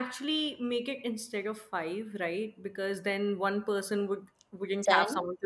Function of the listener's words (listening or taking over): listening